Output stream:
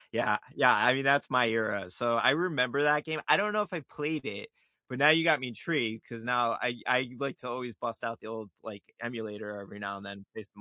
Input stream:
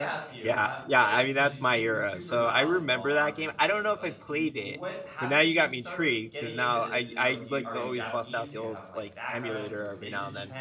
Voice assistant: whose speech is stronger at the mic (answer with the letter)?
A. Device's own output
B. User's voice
A